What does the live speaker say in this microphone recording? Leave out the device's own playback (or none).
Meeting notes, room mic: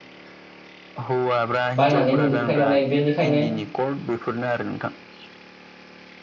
बायनानै मोनजोबखायो नालाय बेनिखायनो।